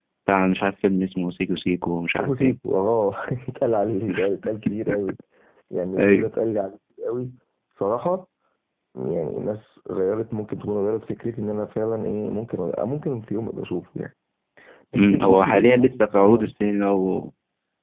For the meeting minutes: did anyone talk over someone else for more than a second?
Yes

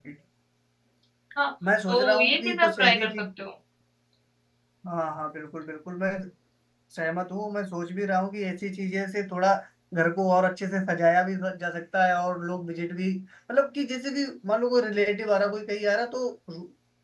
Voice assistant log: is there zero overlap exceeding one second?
No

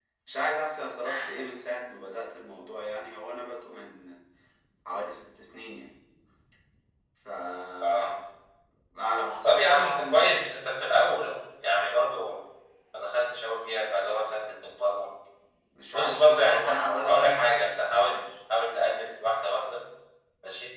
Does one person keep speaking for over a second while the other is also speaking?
Yes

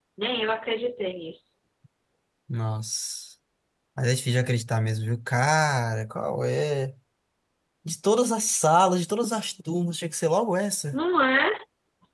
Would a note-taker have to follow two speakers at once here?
No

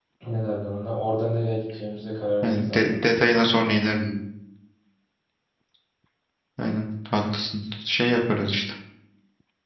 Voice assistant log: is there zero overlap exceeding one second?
Yes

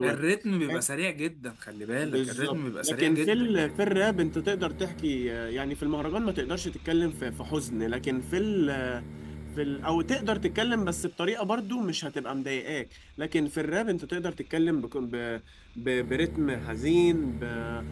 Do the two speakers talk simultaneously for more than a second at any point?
Yes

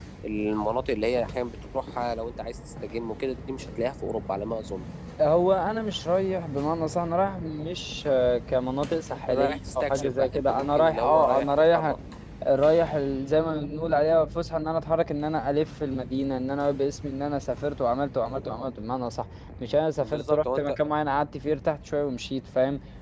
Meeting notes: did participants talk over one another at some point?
Yes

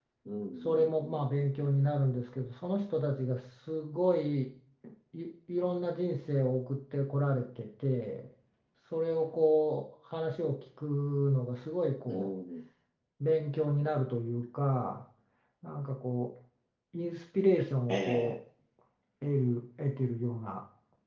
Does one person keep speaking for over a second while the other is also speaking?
No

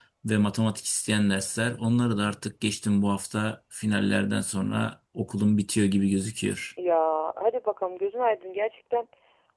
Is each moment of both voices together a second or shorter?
Yes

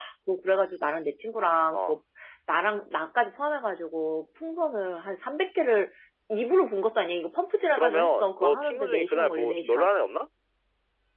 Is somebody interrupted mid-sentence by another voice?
Yes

